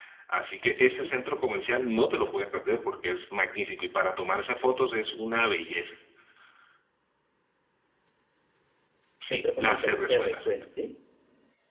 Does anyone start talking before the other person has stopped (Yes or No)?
Yes